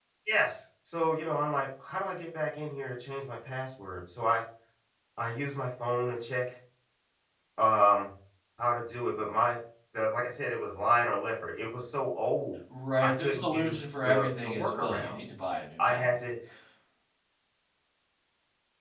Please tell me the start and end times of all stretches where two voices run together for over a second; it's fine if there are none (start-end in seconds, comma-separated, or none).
13.0-15.2